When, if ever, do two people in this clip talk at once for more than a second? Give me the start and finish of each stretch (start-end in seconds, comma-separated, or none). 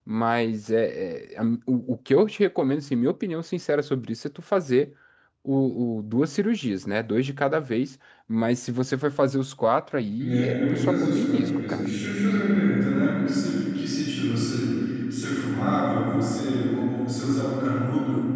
10.2-11.9